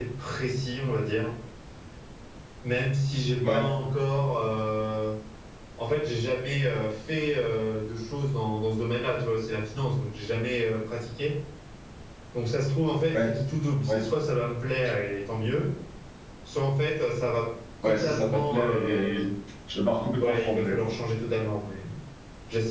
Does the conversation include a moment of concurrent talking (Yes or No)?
Yes